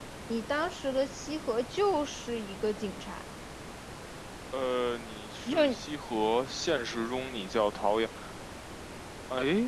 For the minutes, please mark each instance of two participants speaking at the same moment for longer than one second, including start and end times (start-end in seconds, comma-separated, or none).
none